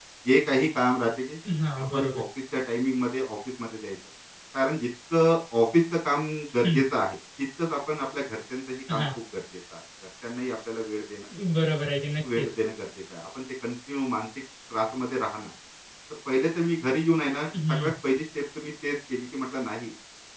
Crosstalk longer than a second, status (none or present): none